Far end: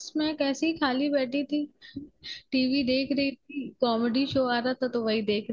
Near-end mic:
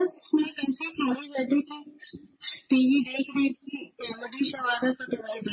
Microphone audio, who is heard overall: echo only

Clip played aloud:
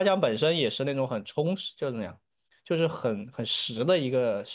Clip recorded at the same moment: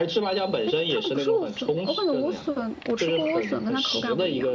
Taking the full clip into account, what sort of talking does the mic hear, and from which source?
both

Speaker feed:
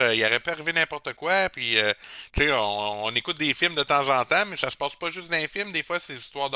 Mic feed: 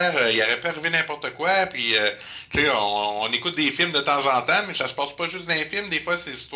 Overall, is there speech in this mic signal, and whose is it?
echo only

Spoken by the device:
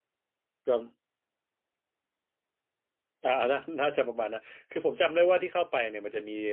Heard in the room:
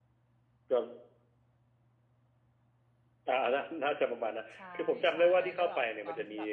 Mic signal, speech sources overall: both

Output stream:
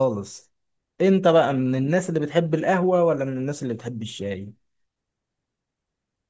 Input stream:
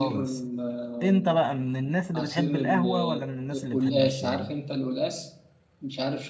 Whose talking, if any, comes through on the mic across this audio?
both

